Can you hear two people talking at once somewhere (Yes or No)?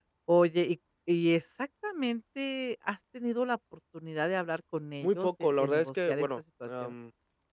Yes